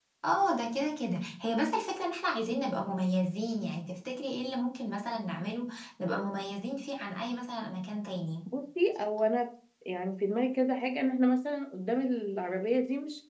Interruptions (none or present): none